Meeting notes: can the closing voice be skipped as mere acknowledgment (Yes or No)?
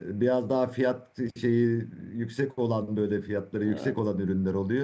Yes